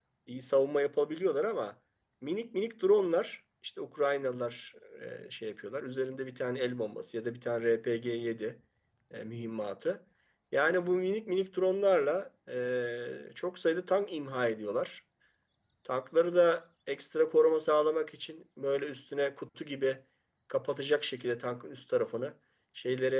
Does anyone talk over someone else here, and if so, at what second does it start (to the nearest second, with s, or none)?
none